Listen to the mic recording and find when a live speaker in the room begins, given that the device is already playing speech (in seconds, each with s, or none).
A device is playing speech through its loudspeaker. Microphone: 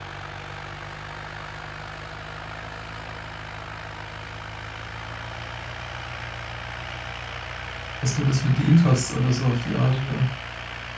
8.0 s